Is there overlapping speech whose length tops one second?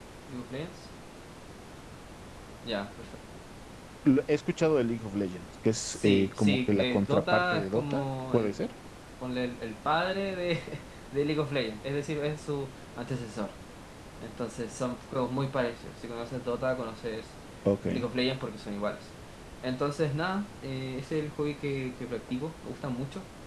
Yes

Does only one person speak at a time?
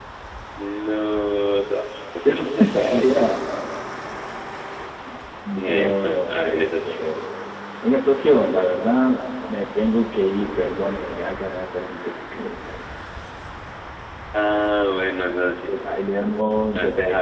No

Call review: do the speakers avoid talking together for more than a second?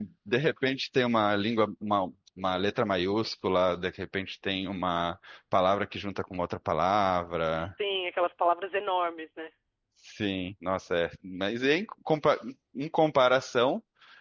Yes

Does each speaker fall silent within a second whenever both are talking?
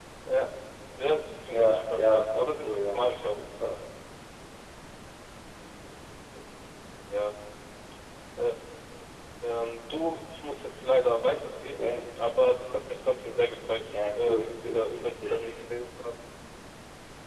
No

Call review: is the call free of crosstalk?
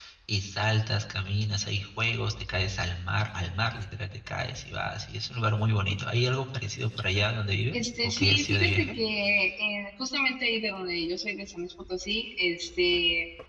No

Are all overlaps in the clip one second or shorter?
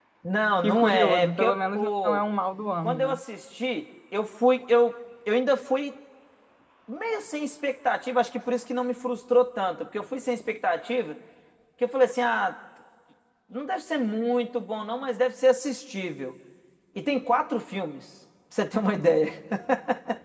No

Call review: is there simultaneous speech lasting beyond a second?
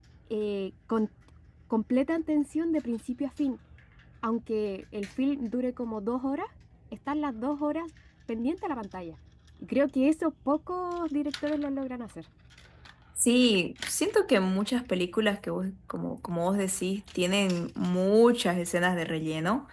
No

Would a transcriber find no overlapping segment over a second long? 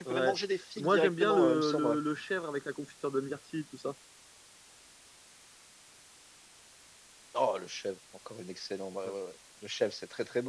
No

